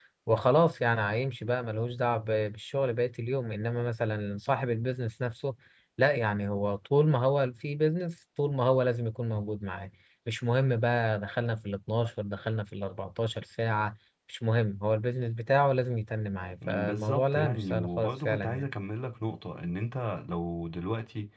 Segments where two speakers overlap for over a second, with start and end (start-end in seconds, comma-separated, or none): 16.7-18.7